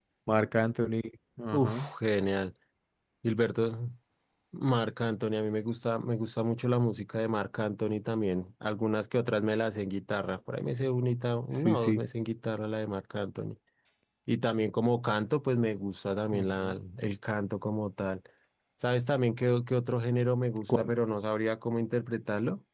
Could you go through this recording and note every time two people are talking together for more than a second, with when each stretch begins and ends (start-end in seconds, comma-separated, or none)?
none